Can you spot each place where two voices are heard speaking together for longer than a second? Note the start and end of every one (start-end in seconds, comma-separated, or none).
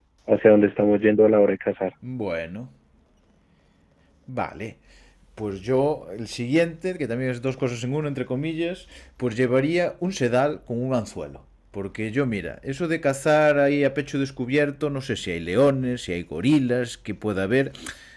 none